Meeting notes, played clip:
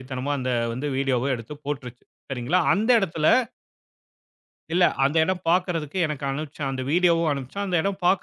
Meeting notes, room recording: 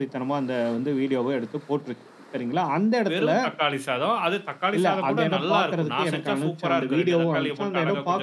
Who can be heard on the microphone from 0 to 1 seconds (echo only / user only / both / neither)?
echo only